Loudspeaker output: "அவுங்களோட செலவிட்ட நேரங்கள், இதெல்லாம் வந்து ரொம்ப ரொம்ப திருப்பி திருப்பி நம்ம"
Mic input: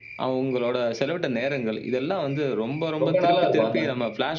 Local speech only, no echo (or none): ரொம்ப நல்லா இருக்கும். அந்த